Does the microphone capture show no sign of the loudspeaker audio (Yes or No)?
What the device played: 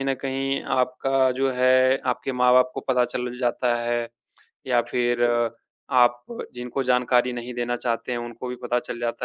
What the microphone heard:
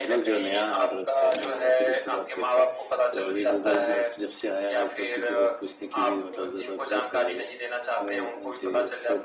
No